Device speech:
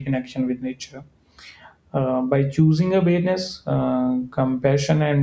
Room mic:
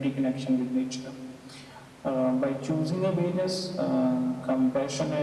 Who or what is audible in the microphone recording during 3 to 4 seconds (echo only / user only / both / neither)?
echo only